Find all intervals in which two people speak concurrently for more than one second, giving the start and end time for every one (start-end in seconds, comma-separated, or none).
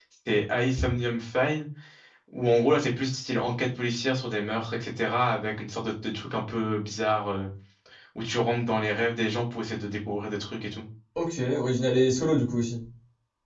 none